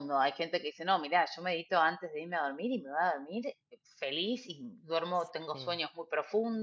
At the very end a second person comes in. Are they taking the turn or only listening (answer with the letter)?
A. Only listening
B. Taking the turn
A